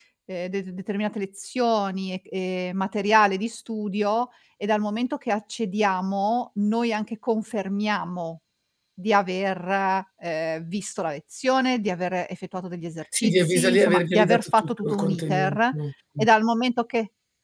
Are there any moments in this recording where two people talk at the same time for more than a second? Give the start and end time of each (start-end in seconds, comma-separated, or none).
13.1-15.6